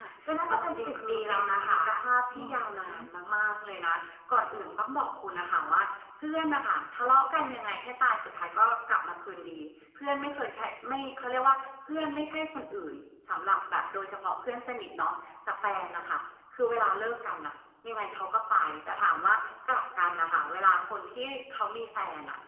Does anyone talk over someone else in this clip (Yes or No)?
Yes